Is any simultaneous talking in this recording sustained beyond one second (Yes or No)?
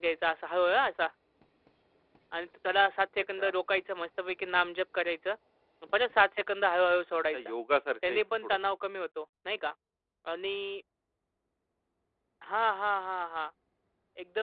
No